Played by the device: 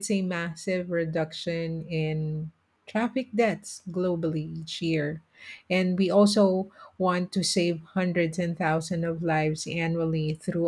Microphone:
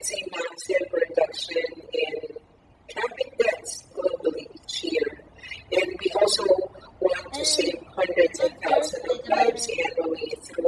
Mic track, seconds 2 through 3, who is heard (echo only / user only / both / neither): echo only